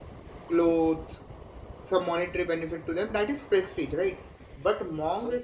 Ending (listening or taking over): listening